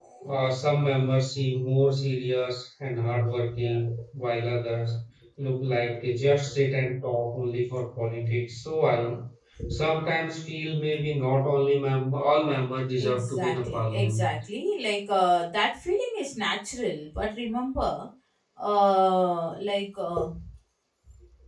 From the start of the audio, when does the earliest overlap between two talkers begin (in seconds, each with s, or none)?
13.0 s